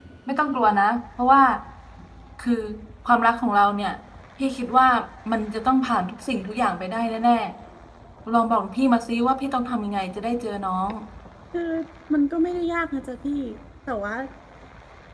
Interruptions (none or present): none